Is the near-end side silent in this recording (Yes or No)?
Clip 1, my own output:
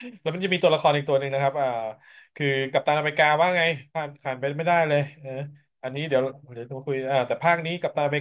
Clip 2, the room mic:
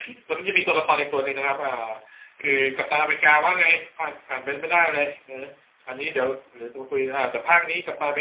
Yes